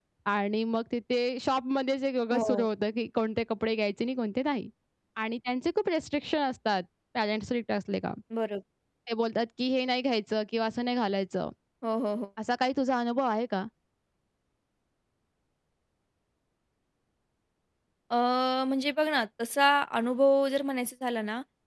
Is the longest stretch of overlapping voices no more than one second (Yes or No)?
Yes